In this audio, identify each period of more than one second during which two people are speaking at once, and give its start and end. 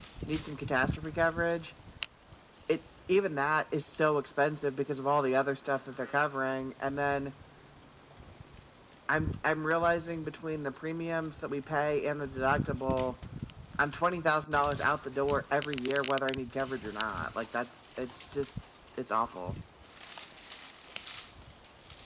none

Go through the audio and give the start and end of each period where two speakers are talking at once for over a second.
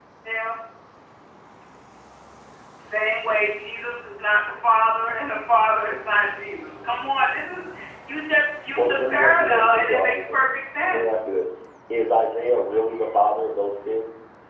8.8-10.5

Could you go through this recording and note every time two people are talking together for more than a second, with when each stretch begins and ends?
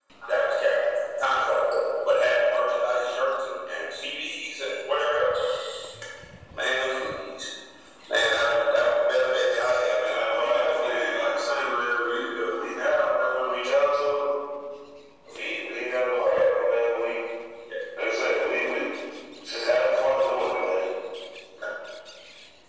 10.0-11.3

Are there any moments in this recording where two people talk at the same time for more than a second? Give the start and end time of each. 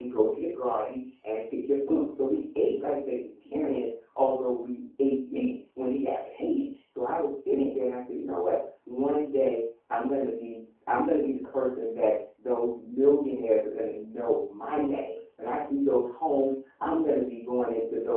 none

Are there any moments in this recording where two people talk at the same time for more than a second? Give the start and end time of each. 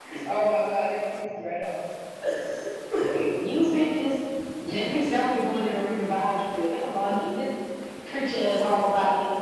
none

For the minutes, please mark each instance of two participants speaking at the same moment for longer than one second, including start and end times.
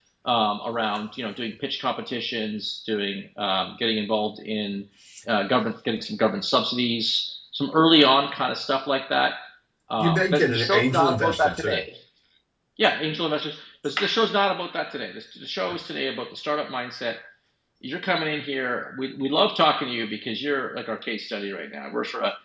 10.0-11.8

